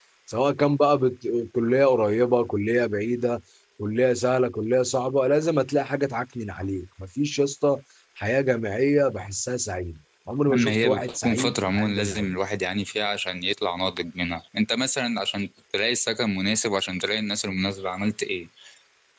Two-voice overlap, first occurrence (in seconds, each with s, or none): 10.5 s